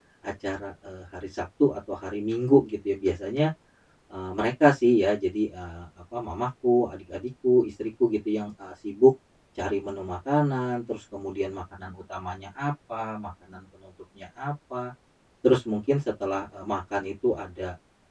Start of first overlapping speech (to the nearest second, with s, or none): none